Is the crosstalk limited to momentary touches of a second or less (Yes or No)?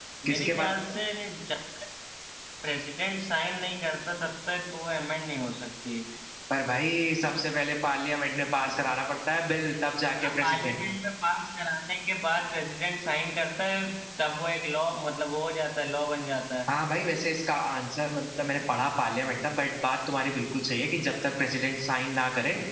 Yes